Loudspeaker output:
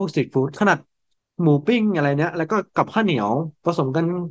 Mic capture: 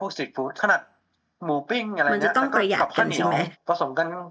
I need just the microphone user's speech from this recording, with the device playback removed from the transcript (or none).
มันจะต้องประหยัดกันจริงไหม